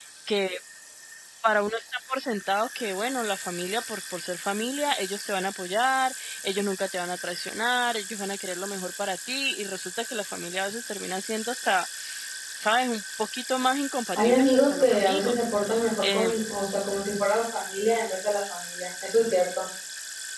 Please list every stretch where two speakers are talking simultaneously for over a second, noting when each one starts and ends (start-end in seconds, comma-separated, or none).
14.2-15.4